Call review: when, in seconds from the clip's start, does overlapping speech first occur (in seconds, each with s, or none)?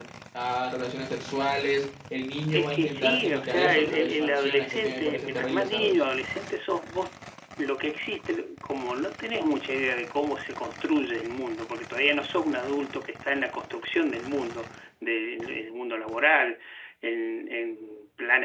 2.5 s